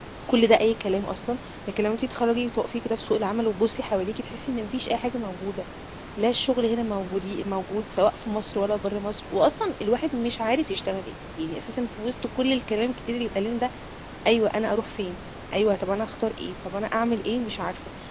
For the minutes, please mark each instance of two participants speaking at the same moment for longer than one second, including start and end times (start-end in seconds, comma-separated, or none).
none